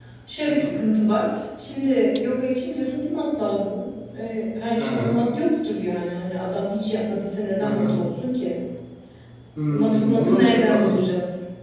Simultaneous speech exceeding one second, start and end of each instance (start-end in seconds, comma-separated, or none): 9.7-10.9